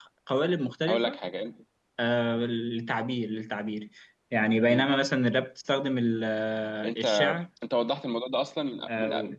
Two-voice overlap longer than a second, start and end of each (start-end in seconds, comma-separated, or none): none